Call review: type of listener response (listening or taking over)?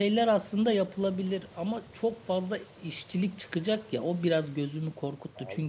listening